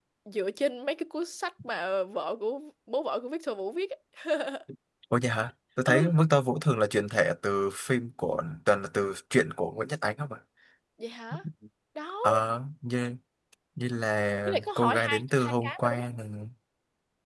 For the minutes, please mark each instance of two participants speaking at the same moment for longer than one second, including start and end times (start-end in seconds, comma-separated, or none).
14.5-16.0